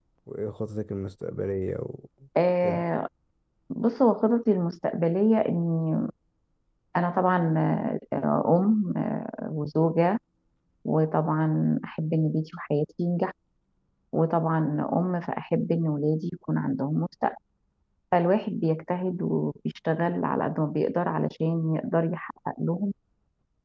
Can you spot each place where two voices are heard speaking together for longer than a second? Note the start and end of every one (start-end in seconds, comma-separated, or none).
none